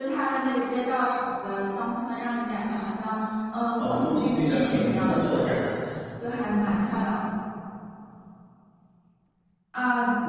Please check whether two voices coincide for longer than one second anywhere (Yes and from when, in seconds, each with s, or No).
Yes, from 3.8 s